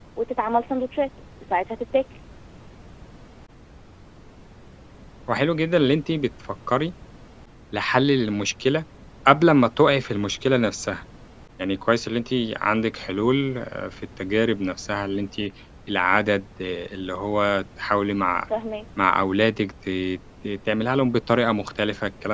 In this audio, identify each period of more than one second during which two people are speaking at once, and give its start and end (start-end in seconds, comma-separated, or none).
none